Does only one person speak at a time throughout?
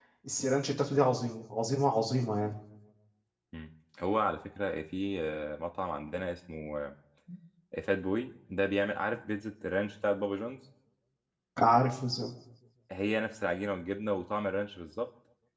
Yes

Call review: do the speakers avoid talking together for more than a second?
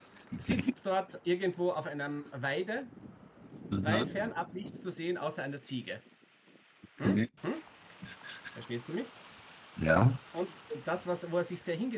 Yes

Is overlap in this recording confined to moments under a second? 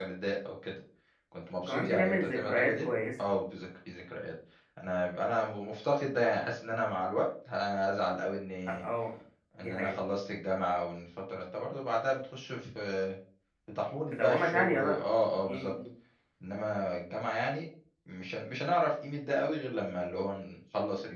No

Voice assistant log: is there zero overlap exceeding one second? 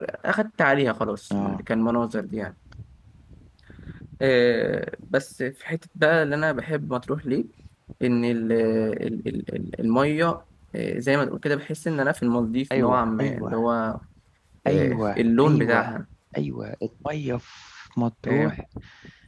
No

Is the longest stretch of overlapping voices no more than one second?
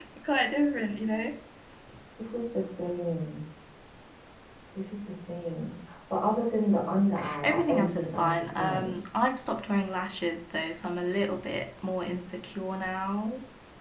No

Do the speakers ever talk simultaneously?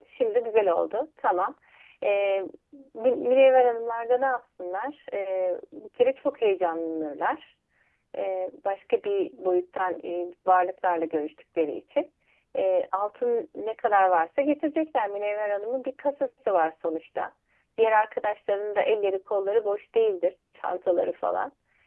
No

